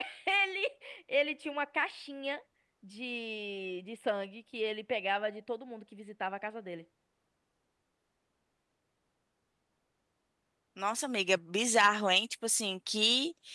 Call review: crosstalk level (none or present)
none